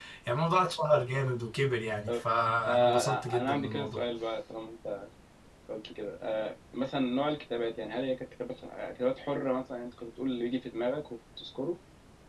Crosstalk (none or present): present